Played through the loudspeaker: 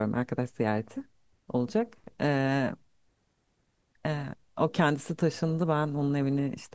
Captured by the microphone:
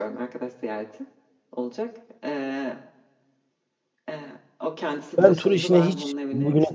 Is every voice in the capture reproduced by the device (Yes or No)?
No